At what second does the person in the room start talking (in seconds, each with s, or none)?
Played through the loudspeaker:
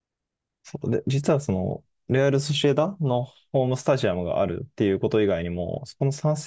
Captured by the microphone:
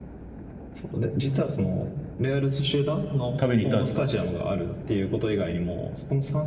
3.4 s